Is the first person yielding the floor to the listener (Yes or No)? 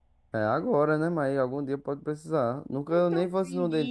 Yes